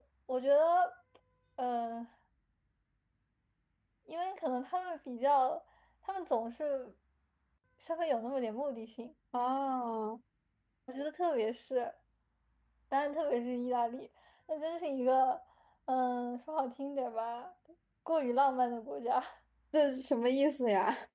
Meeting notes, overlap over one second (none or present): none